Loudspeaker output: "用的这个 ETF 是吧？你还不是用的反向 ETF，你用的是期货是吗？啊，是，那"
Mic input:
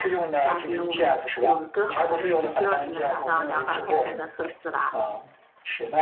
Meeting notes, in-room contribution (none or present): present